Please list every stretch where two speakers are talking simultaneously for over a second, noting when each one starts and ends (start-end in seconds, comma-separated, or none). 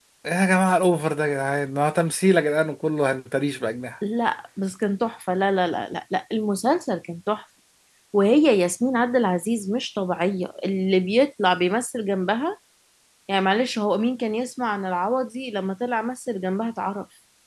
none